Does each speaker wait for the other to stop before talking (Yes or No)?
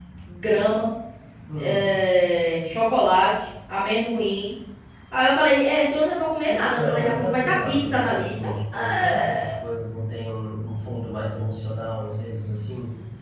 No